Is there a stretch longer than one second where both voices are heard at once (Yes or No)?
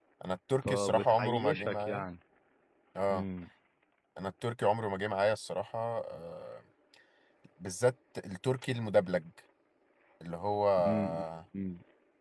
Yes